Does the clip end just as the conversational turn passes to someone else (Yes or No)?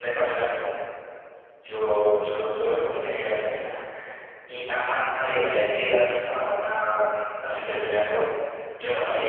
Yes